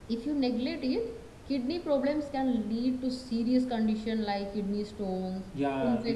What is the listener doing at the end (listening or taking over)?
taking over